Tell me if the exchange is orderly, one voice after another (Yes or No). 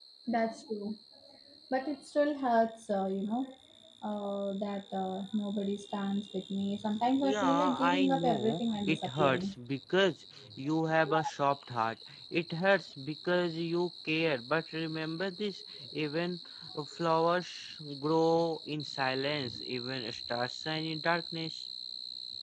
No